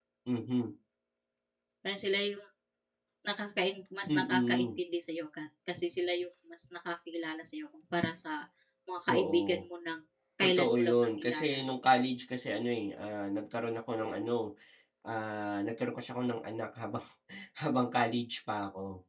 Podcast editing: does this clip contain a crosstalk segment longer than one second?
Yes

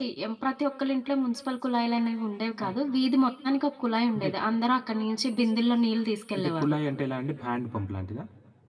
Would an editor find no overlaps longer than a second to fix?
Yes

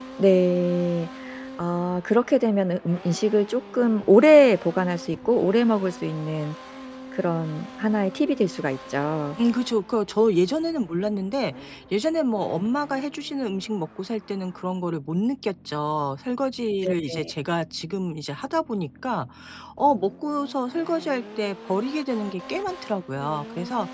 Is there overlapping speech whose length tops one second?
No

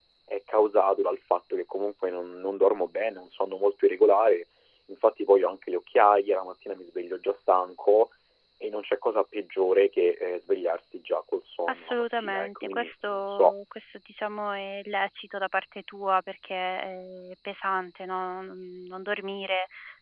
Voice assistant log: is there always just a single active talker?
No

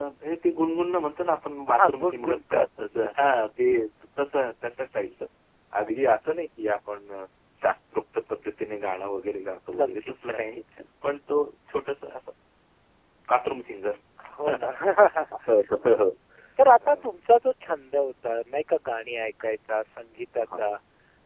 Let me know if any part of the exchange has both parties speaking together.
Yes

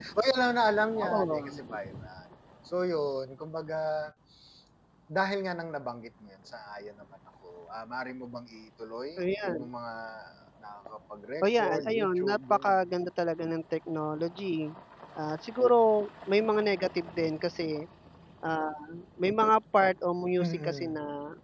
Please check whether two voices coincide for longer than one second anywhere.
Yes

